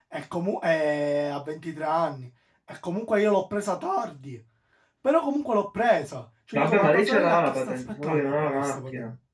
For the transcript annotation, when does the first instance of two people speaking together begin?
6.5 s

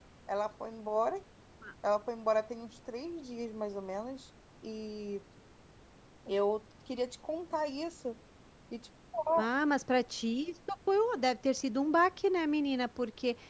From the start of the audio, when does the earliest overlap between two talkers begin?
none

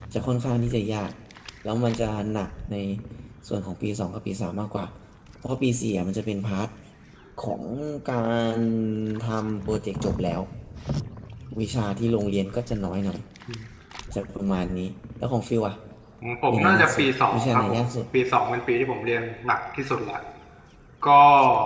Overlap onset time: 16.5 s

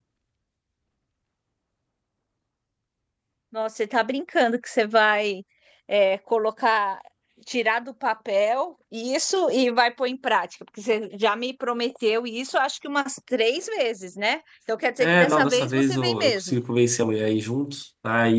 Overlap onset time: 15.0 s

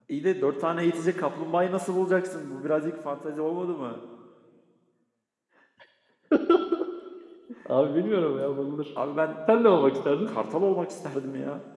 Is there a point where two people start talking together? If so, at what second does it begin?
none

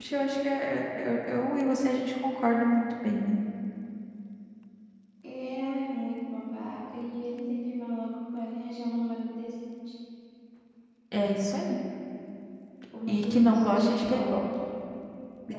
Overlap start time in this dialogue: 13.1 s

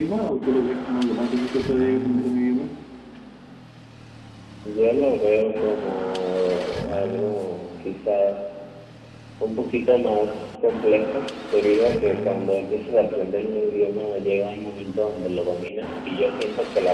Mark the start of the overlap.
none

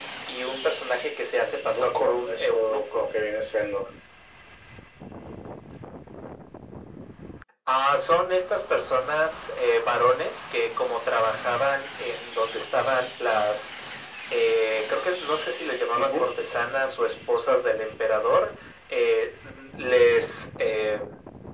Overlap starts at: 1.4 s

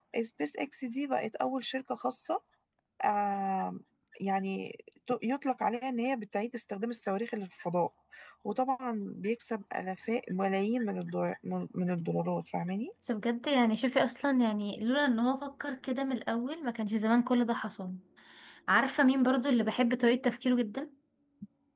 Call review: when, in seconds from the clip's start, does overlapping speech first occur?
none

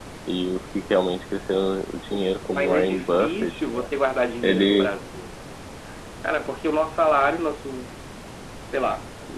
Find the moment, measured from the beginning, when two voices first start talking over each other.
2.6 s

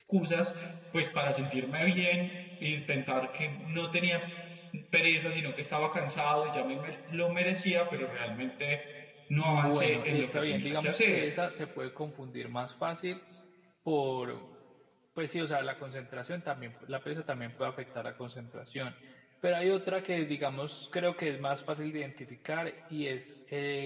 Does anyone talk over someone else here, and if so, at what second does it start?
9.4 s

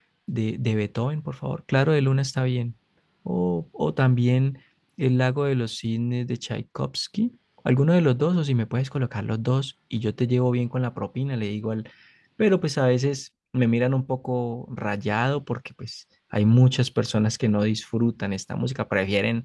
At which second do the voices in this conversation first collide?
none

